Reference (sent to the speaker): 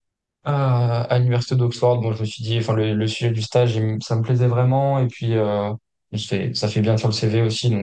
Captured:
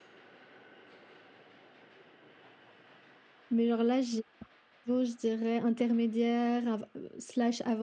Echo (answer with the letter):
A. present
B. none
B